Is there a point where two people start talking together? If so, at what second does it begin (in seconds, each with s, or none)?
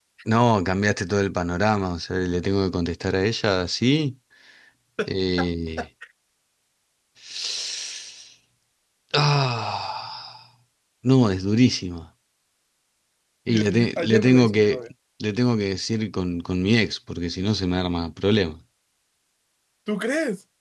13.5 s